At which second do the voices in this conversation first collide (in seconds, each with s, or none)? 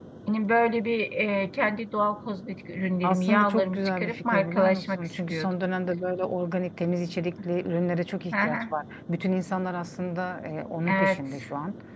3.0 s